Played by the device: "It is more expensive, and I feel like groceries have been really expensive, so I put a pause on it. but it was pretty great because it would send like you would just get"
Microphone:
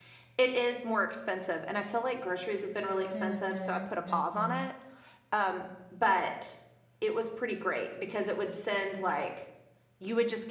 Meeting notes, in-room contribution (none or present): present